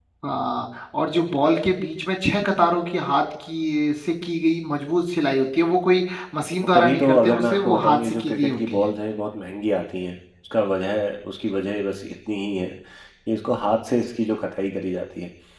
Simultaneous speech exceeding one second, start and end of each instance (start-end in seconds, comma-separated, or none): 6.7-8.9